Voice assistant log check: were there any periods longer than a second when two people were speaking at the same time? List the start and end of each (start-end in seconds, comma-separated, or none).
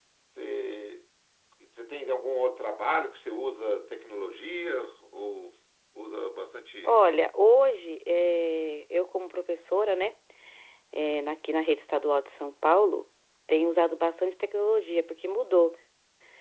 none